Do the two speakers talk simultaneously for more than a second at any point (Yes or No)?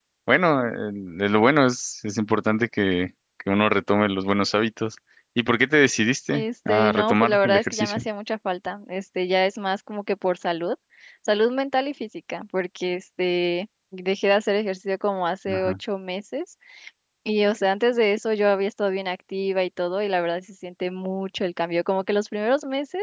Yes